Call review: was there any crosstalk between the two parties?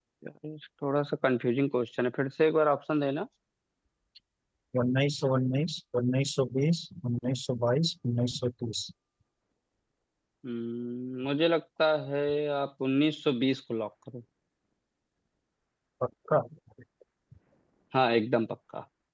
No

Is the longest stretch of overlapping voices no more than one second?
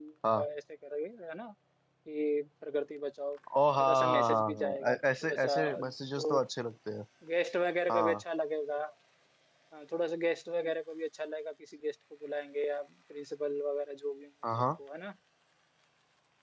No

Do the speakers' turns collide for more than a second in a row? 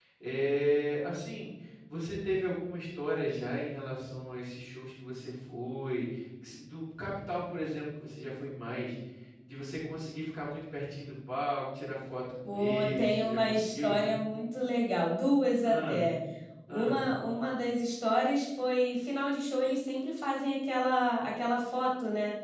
Yes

